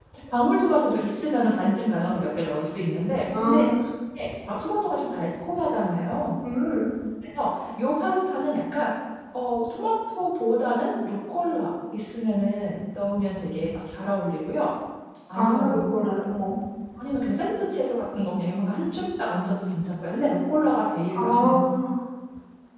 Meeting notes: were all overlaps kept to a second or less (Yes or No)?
Yes